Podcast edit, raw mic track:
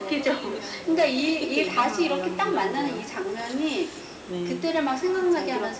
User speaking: Yes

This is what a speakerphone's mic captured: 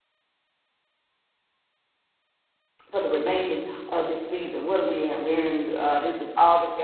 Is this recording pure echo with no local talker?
No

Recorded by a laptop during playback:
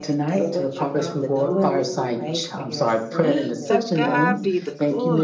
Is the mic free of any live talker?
No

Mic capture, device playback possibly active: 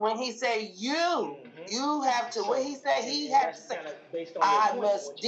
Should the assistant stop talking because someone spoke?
Yes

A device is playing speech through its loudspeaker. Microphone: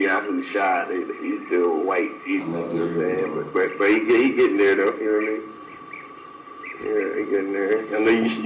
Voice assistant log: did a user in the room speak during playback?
Yes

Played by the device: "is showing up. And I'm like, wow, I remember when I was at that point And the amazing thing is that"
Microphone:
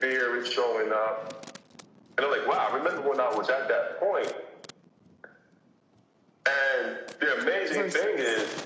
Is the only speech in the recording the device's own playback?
No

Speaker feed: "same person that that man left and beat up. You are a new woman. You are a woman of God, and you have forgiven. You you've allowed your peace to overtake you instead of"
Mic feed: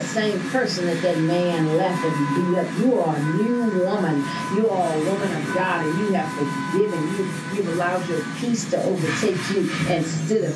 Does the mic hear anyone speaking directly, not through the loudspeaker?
No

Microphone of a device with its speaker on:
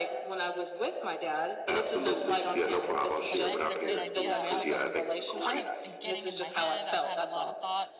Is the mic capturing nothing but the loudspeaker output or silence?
No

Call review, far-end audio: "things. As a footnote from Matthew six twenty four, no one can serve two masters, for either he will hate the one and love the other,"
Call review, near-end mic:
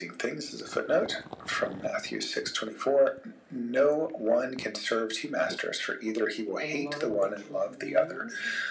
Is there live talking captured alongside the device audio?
Yes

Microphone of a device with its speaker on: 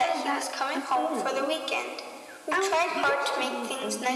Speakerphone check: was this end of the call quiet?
No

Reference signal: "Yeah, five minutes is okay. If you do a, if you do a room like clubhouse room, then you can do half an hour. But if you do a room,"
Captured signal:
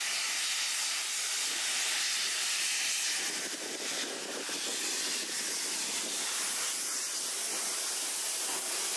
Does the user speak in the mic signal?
No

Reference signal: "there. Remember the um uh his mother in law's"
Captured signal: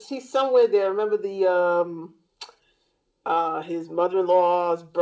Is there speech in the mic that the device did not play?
No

